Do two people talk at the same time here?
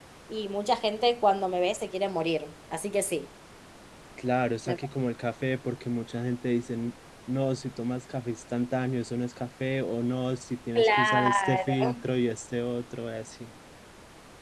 Yes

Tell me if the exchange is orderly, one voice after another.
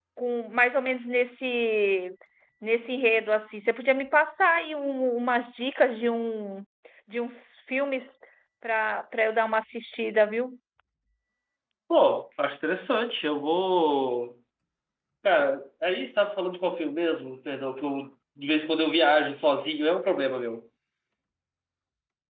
Yes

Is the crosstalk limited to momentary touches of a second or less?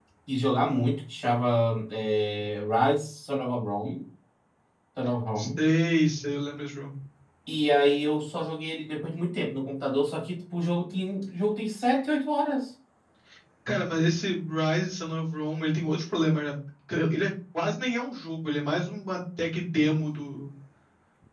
Yes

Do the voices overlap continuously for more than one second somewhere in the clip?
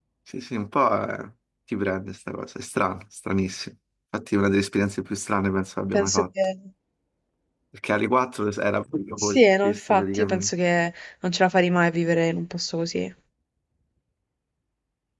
Yes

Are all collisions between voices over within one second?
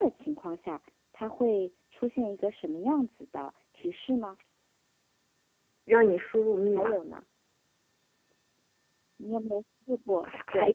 Yes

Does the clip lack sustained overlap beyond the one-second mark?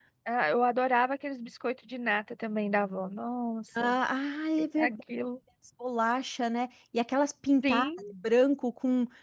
Yes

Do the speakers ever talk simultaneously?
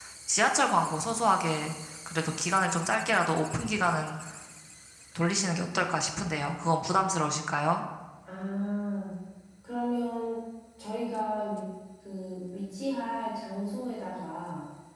No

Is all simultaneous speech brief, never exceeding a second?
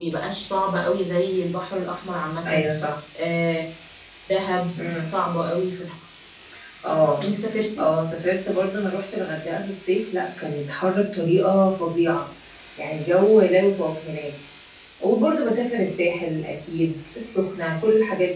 Yes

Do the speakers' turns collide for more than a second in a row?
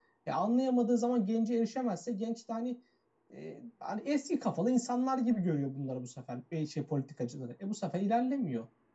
No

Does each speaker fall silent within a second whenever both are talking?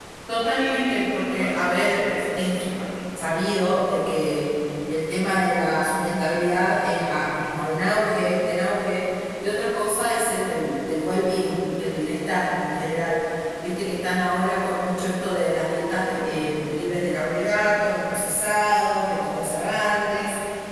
No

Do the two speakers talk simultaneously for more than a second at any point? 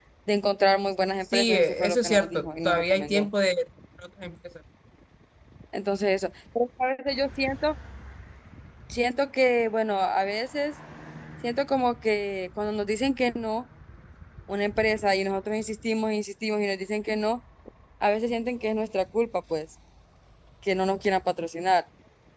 Yes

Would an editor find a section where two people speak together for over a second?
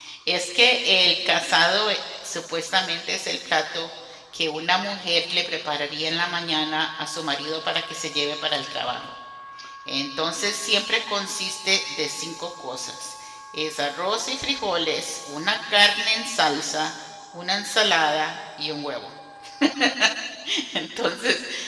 No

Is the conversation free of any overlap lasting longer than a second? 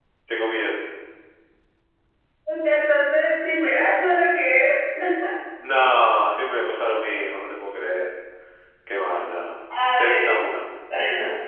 Yes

